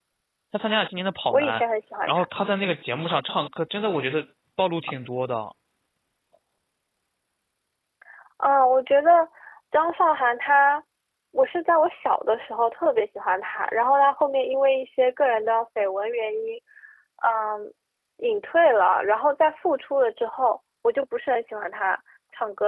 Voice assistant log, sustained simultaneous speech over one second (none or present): none